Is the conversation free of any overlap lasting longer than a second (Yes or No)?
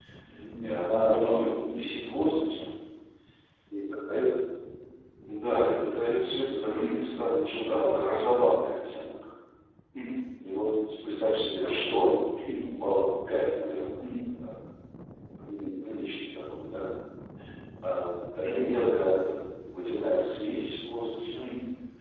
No